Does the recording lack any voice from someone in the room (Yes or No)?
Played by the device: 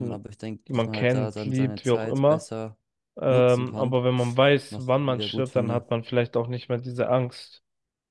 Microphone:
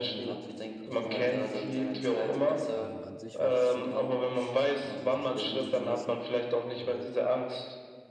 No